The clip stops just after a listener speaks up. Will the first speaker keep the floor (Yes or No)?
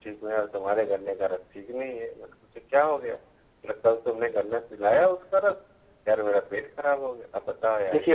No